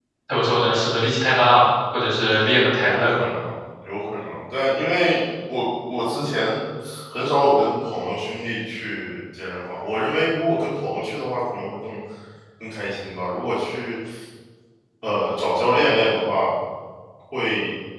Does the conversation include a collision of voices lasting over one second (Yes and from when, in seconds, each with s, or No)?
No